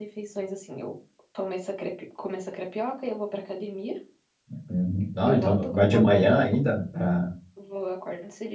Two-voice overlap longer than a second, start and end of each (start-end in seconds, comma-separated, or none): 5.3-6.5